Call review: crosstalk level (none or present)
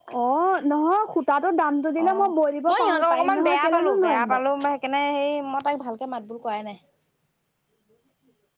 present